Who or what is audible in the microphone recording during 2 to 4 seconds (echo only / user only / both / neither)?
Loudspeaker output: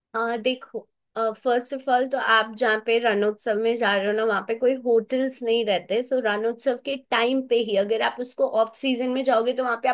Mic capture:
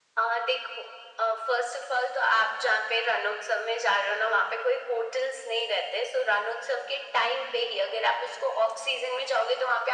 echo only